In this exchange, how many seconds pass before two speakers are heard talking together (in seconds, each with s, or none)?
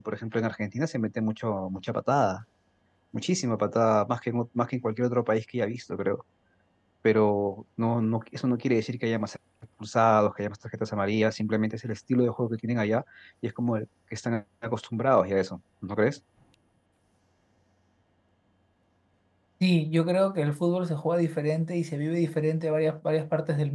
none